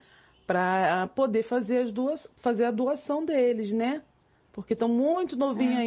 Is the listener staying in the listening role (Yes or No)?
Yes